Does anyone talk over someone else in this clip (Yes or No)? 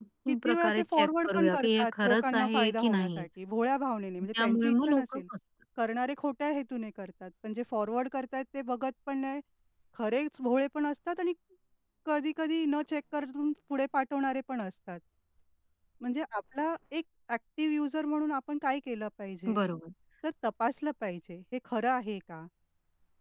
Yes